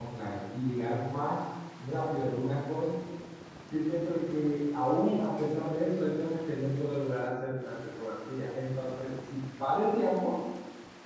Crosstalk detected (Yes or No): No